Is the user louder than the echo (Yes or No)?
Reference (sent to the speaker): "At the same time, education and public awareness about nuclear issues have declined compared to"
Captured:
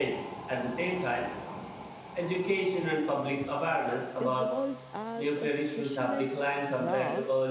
No